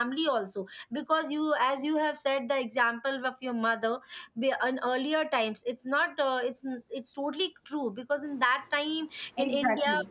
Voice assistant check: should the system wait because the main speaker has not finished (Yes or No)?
Yes